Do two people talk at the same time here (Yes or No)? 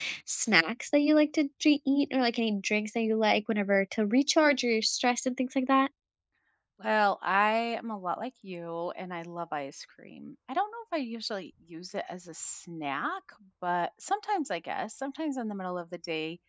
No